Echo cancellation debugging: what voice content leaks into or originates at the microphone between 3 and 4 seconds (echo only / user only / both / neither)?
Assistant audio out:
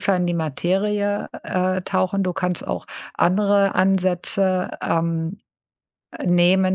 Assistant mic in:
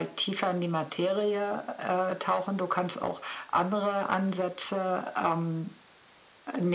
echo only